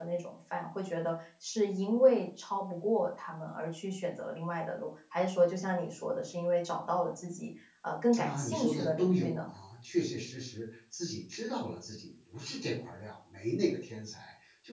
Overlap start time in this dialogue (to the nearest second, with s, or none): 8 s